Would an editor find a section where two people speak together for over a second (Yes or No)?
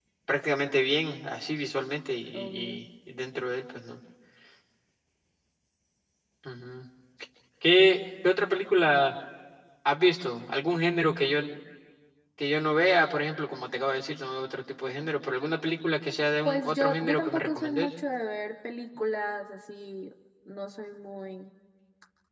Yes